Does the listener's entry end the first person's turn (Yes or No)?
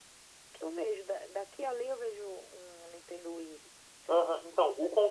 Yes